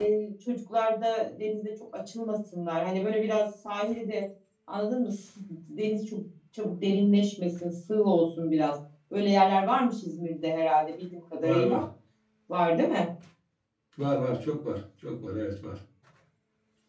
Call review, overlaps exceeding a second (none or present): none